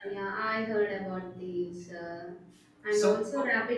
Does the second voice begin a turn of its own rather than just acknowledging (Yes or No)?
No